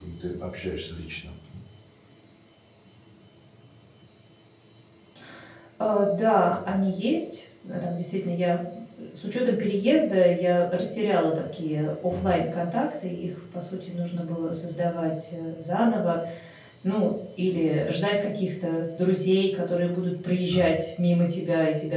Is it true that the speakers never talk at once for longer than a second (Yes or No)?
Yes